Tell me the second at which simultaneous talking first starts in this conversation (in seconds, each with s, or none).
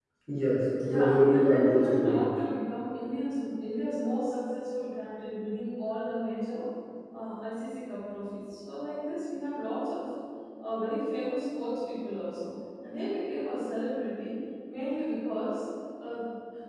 0.8 s